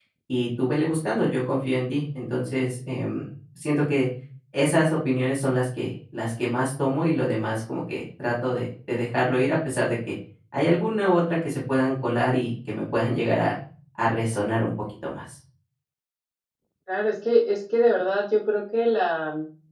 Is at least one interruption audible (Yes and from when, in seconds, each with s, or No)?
No